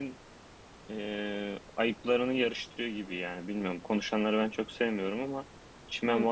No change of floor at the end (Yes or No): No